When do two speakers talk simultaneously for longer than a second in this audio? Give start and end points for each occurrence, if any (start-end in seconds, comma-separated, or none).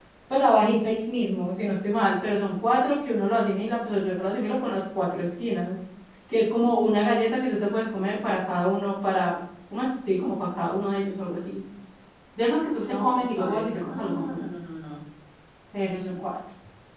12.8-14.4